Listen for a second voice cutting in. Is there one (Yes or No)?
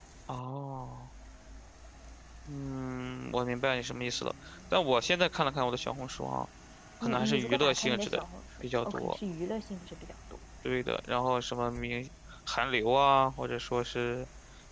Yes